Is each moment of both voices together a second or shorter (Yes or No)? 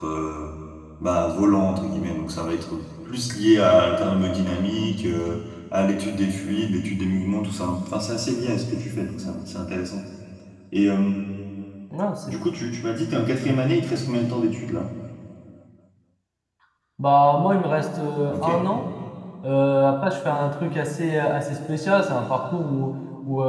Yes